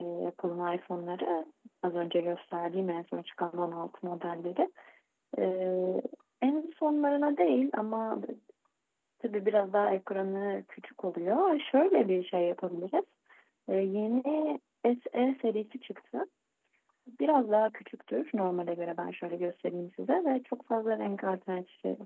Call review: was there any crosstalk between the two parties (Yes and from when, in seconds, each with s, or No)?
No